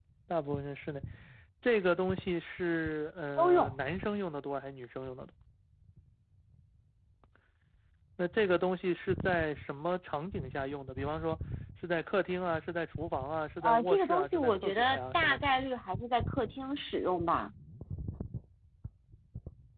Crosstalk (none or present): present